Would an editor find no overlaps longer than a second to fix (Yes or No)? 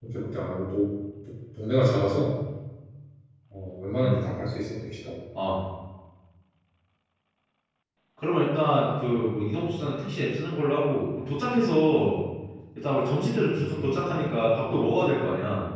Yes